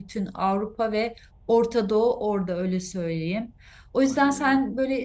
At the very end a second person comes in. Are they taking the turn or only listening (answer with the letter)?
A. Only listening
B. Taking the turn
A